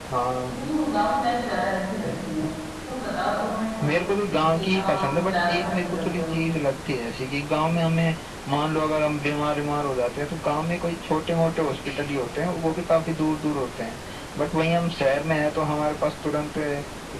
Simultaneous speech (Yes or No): Yes